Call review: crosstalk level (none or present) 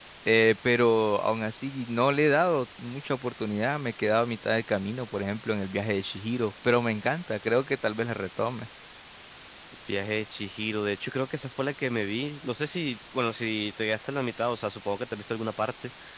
none